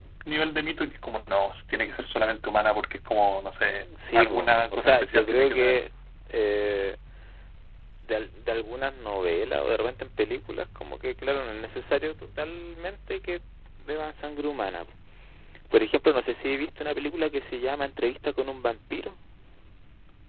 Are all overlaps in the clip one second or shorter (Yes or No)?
No